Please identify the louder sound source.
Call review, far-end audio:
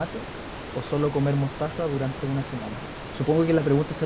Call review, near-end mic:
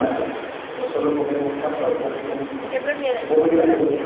echo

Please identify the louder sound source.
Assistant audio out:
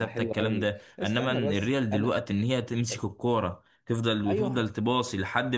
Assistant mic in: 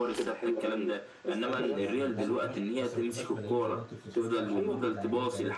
echo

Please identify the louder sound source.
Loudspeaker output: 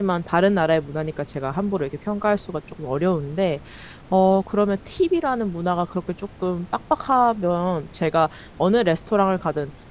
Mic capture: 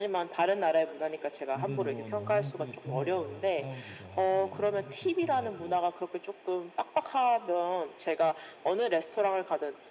echo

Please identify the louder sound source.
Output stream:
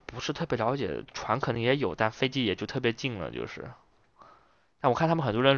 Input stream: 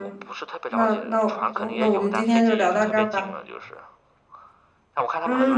user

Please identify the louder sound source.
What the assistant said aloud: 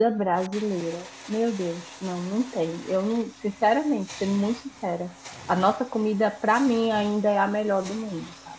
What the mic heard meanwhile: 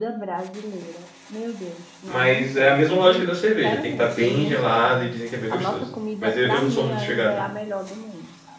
user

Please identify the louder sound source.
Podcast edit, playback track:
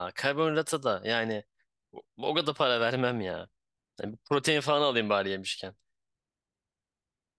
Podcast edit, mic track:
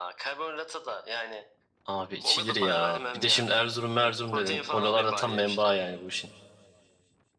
user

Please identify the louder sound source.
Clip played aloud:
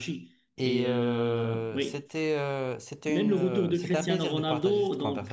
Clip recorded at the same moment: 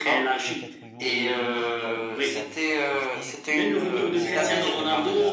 echo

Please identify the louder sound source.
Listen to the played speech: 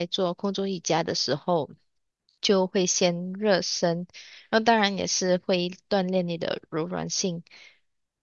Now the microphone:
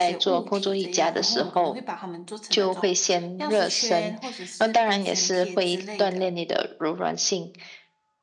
echo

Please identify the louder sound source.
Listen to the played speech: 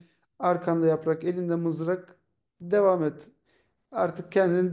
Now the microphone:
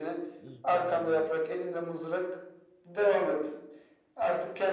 echo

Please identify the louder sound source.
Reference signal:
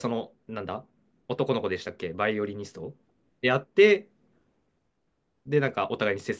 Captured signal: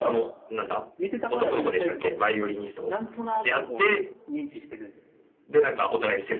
echo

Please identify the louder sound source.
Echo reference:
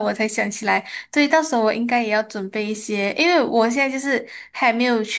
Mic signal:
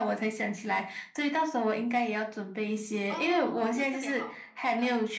echo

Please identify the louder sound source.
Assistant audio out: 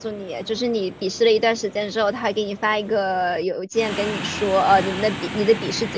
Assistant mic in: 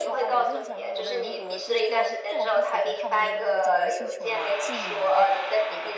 echo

